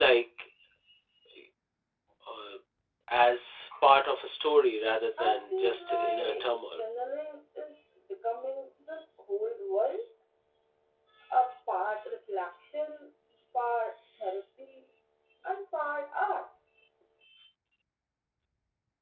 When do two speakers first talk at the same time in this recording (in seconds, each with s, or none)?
5.2 s